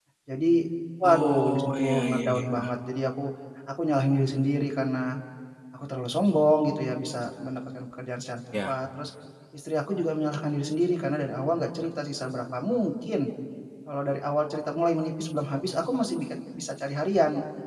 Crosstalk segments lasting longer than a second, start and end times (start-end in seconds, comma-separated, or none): 1.0-2.7